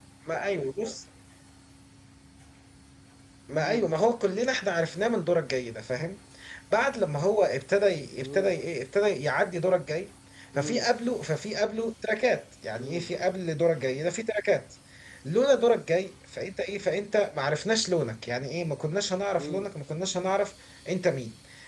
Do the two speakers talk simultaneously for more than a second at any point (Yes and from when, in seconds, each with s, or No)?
No